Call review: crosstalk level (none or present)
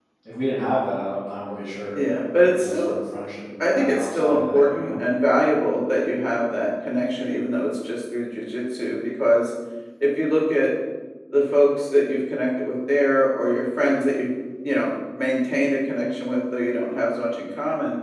present